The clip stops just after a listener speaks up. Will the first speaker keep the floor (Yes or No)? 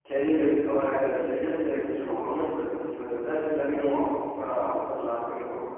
Yes